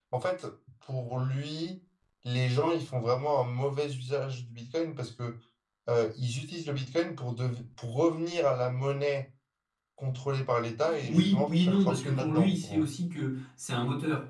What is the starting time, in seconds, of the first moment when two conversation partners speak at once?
11.0 s

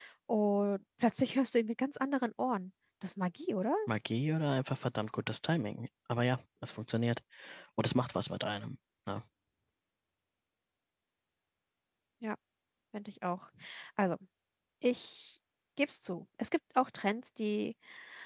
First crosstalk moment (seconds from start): none

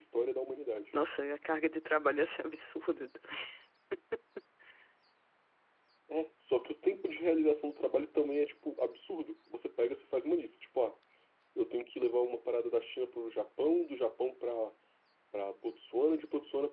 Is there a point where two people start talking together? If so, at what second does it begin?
none

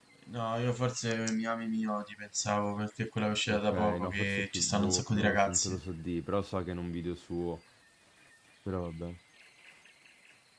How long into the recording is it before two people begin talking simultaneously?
3.5 s

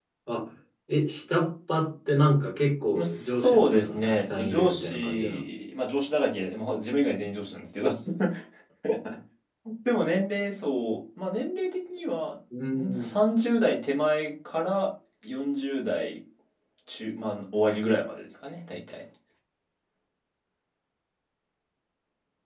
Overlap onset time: 2.9 s

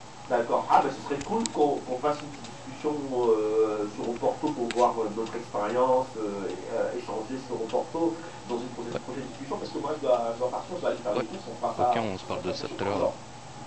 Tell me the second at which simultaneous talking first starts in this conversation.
11.8 s

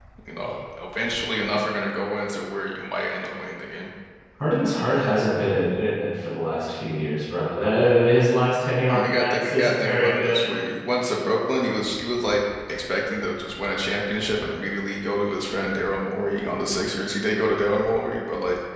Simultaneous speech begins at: 8.9 s

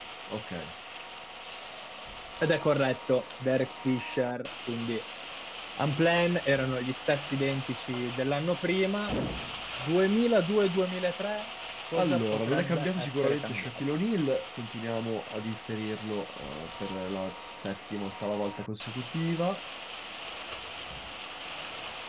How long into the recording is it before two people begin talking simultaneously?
11.9 s

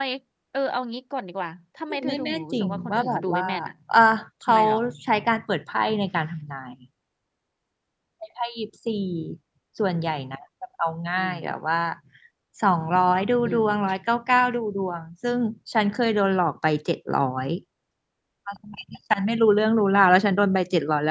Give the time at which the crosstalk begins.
2.0 s

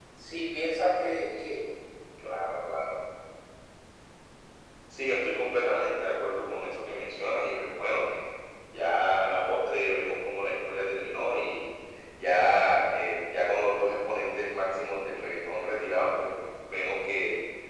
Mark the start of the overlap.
none

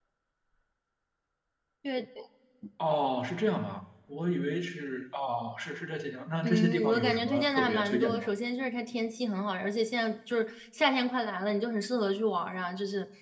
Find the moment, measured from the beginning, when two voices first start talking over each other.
6.4 s

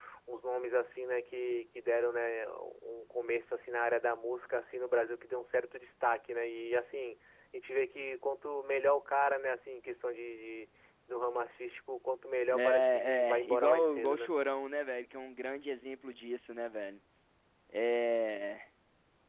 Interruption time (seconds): 12.5 s

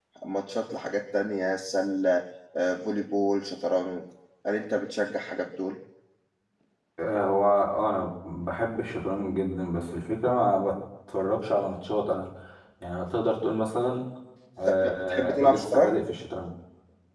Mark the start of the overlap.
14.7 s

